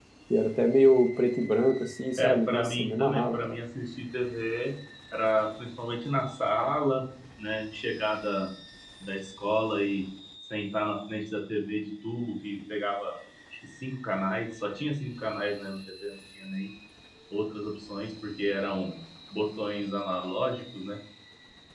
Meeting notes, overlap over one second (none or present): present